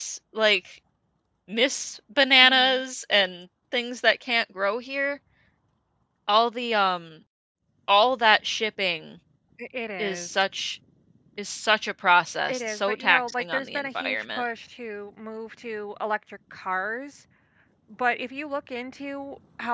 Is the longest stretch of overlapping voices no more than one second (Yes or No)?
No